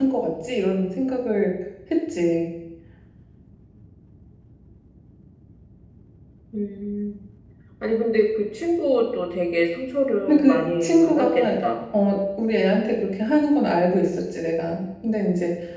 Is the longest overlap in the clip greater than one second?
Yes, from 10.3 s

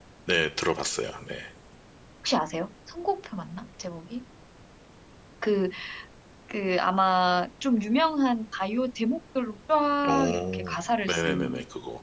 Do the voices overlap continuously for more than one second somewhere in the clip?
Yes, from 10.0 s

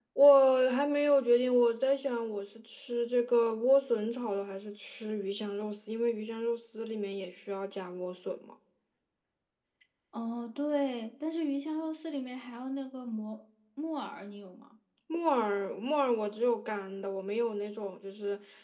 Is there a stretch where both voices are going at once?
No

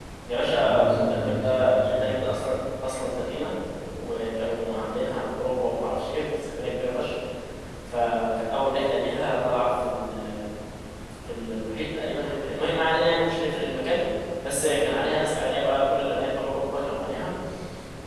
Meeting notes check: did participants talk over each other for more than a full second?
Yes, from 0.6 s

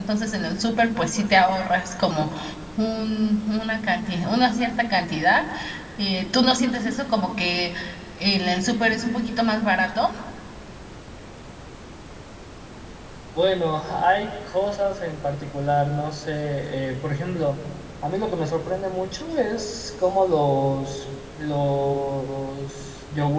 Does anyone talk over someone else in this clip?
No

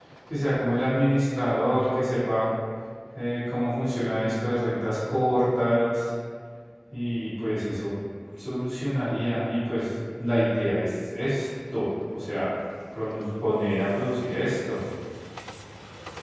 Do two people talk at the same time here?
No

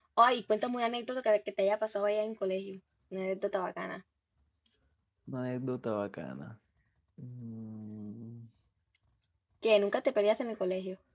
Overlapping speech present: No

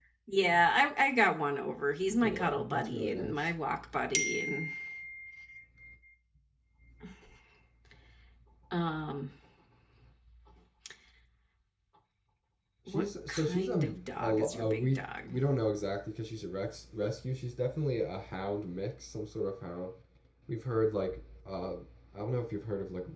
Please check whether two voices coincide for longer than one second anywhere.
Yes, from 2.2 s

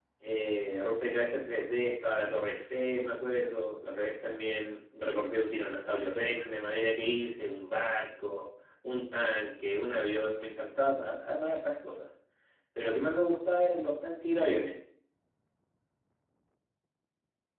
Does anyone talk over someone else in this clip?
No

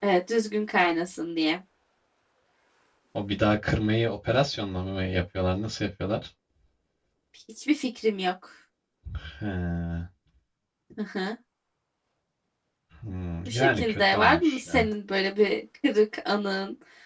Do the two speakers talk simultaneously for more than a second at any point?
Yes, from 13.5 s

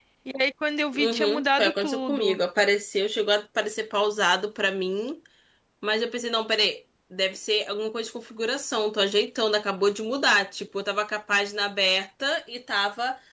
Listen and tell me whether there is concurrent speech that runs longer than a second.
Yes, from 0.9 s

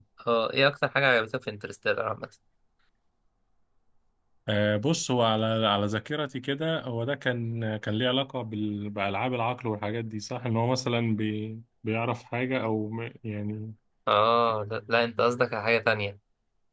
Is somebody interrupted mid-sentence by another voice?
No

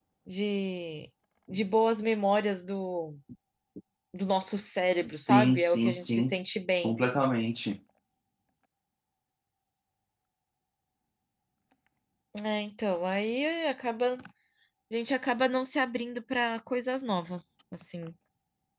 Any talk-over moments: Yes, from 5.1 s

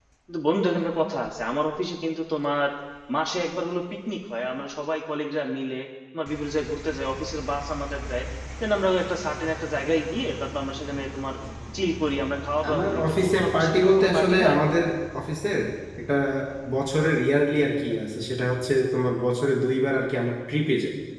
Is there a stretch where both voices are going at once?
Yes, from 12.6 s

